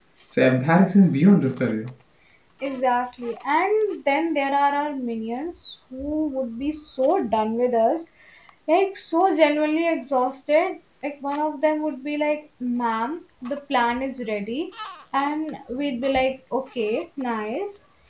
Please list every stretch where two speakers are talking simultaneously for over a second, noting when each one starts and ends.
none

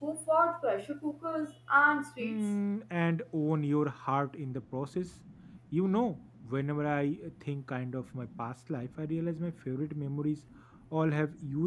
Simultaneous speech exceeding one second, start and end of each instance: none

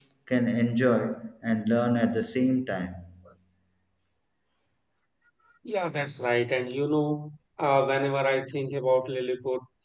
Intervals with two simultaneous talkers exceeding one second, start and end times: none

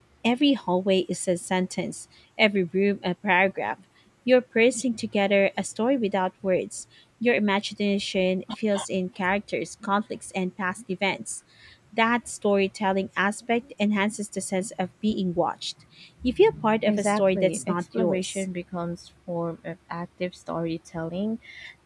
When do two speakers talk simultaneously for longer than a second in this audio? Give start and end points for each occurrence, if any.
16.9-18.4

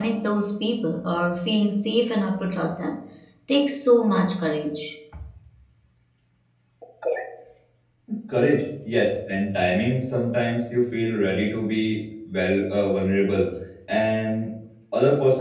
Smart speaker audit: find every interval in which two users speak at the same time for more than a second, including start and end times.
none

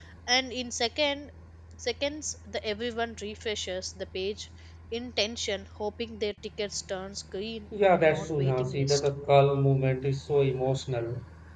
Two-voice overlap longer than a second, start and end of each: 7.8-9.1

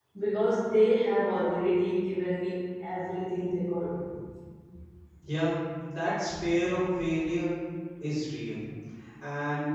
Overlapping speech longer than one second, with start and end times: none

